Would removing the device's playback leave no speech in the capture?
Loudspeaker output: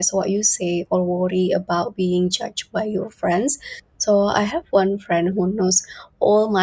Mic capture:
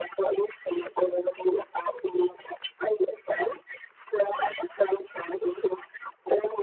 Yes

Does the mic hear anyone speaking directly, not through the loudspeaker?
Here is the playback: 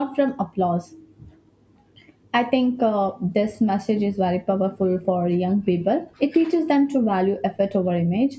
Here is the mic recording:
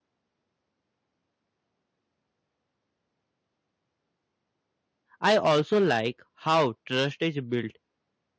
Yes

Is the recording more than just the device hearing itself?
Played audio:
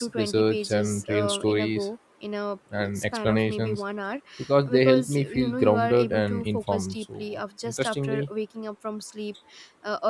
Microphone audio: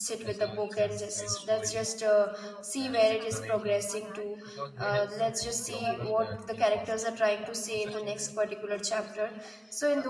Yes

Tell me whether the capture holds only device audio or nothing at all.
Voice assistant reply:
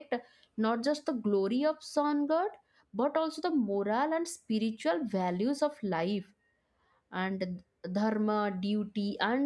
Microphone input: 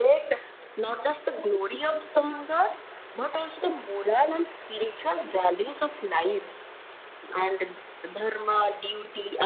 Yes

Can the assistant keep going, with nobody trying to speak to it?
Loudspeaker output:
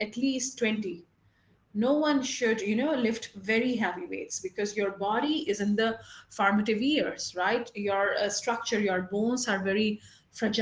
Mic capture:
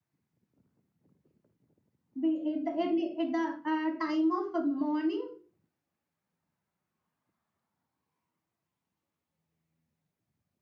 No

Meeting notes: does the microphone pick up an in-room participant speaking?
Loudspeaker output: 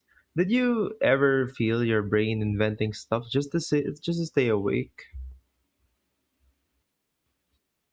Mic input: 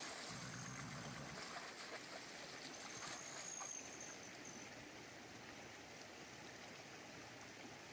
No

